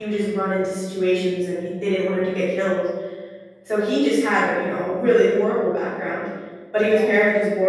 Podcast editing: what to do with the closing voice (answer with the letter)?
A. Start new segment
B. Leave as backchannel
B